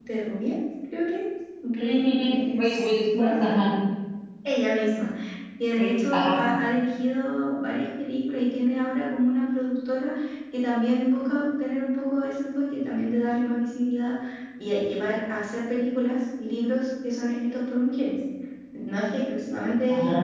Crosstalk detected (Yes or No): Yes